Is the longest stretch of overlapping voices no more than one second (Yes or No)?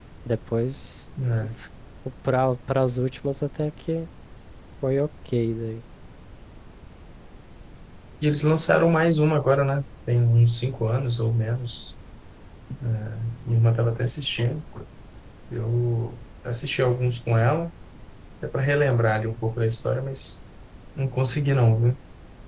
Yes